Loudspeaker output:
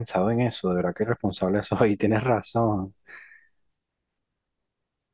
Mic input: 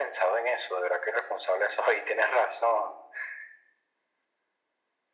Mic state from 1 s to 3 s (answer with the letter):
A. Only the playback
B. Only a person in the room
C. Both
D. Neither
A